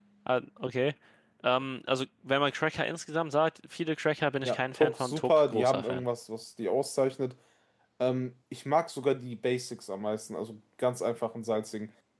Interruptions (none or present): present